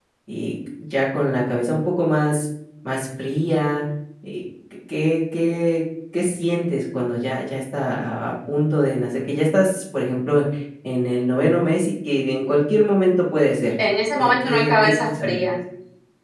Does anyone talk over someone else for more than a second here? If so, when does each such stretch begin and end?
14.2-15.4

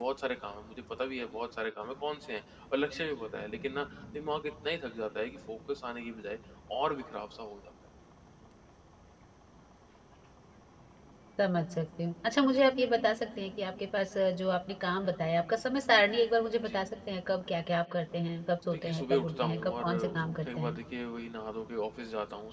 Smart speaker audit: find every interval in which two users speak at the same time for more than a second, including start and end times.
18.7-20.8

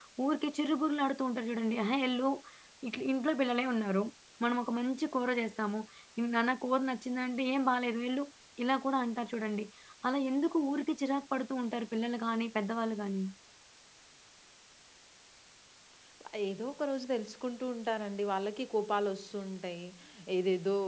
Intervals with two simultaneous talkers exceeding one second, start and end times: none

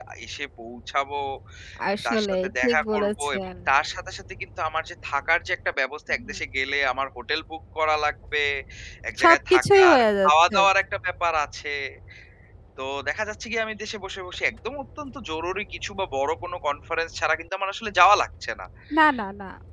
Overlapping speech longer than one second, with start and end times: 2.1-3.4, 9.2-10.6

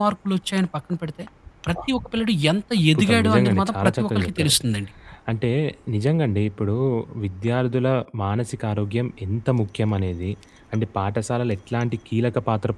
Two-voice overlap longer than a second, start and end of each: 3.0-4.5

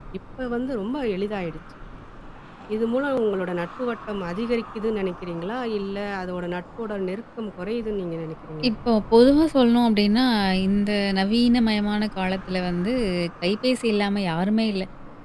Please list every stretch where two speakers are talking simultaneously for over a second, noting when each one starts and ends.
none

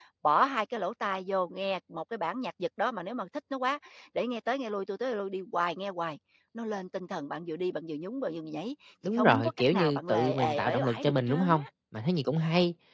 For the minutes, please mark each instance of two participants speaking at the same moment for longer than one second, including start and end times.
9.2-11.7

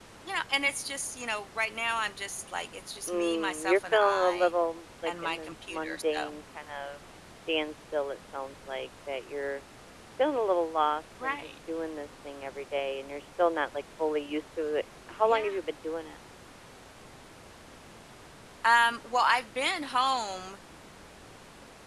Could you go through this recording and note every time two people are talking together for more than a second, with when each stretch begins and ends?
3.1-4.5, 5.1-6.3

